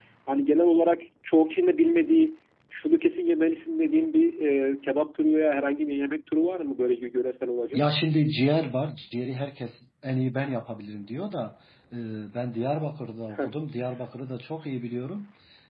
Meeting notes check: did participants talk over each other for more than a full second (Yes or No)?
No